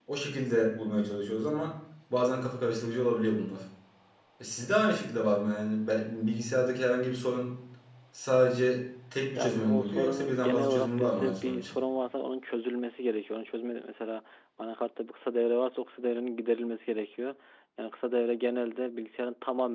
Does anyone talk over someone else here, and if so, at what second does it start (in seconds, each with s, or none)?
9.4 s